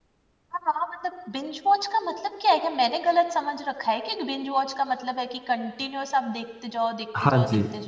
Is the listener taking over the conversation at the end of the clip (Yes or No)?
Yes